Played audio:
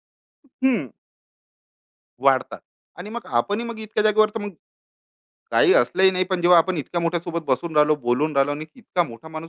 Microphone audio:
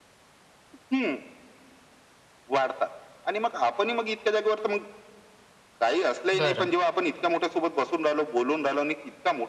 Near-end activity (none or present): present